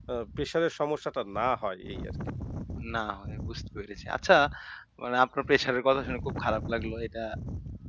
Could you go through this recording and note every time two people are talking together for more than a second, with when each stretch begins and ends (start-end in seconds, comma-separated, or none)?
none